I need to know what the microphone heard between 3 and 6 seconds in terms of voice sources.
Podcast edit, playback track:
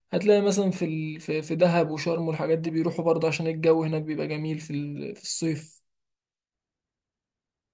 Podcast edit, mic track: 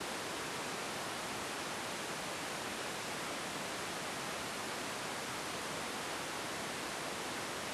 neither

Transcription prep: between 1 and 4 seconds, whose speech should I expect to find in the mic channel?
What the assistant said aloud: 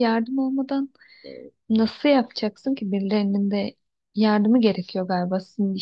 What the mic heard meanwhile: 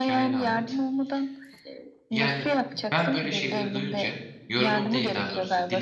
both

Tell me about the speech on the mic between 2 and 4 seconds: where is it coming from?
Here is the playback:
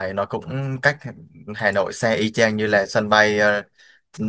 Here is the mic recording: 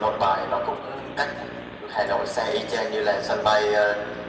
echo only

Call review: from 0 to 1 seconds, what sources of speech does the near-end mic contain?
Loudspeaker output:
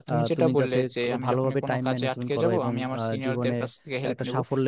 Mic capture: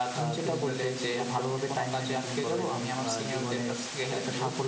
echo only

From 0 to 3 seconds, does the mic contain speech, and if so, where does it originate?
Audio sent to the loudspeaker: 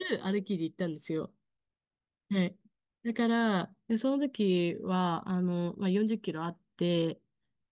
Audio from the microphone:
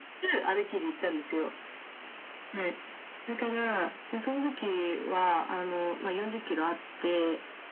echo only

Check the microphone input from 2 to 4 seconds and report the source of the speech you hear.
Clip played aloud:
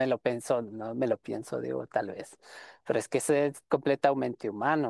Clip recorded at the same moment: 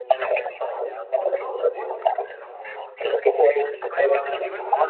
both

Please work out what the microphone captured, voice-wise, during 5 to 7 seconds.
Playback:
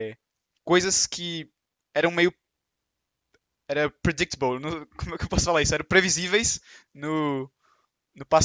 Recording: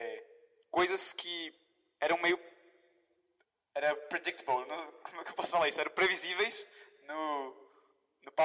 echo only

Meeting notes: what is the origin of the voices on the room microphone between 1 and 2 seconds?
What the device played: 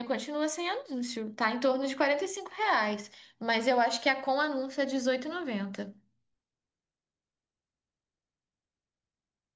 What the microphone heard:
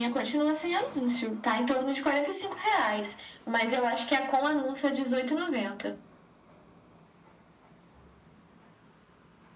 echo only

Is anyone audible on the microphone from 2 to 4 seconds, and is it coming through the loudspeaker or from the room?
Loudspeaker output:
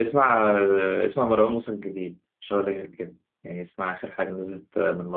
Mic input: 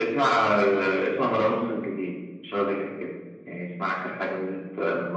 echo only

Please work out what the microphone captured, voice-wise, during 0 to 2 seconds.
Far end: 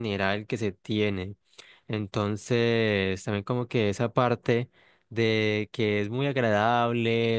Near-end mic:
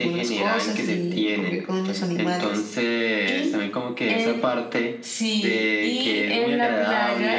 both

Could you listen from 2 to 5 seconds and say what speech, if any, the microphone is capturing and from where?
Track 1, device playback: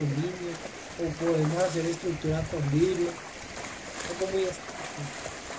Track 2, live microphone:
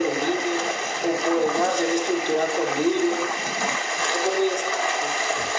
echo only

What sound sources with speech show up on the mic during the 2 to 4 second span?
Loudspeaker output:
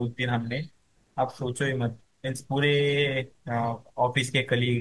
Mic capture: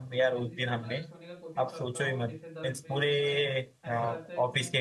both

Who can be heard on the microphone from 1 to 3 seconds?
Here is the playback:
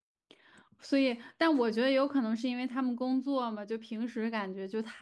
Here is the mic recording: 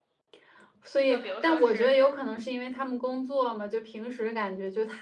both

